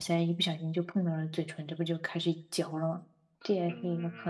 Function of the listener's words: taking over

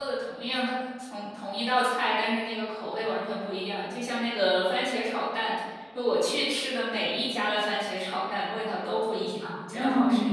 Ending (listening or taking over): taking over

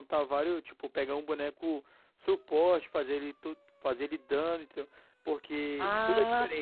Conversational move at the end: taking over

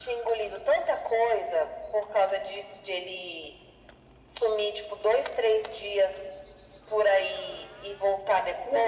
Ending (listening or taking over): taking over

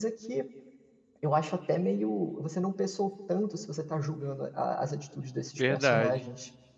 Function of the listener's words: taking over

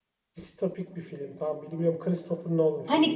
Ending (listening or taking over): taking over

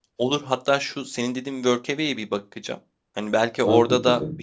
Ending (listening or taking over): listening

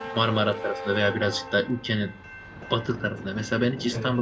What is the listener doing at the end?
listening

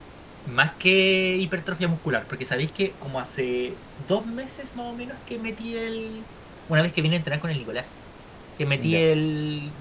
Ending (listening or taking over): listening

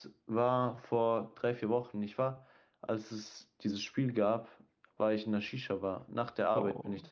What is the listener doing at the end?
listening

